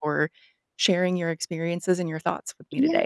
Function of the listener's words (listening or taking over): taking over